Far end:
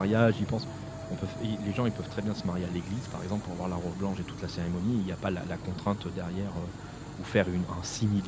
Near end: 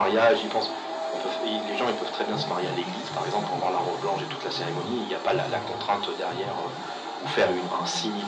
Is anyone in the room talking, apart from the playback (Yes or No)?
Yes